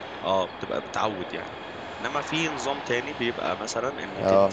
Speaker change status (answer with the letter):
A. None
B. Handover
A